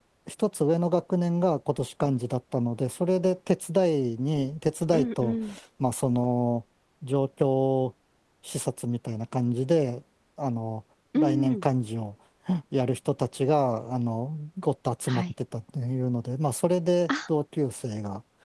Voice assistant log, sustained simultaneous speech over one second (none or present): none